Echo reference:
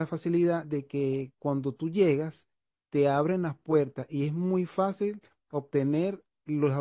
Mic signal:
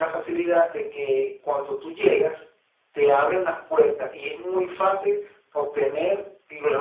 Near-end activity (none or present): none